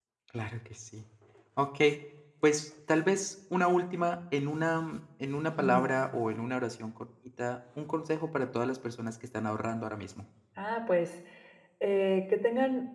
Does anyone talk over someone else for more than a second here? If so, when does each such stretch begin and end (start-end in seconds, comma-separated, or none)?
none